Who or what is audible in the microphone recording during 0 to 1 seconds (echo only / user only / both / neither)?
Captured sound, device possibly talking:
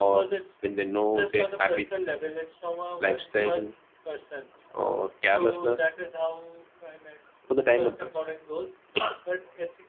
both